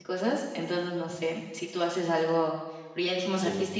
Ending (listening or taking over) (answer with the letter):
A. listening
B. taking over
A